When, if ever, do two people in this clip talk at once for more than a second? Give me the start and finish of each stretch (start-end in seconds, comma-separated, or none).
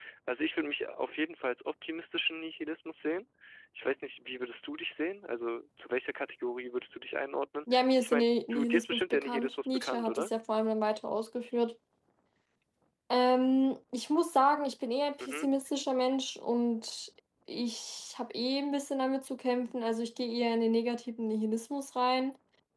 7.7-10.3